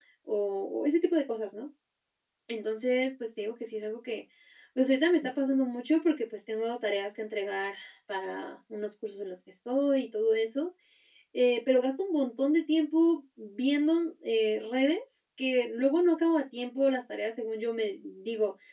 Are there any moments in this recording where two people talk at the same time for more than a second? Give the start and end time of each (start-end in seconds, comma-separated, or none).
none